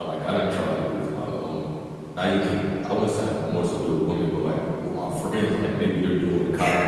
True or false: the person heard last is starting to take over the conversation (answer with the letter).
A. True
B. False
B